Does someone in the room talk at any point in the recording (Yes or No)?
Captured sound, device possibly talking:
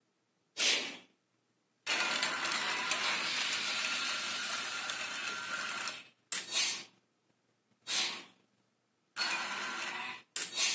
No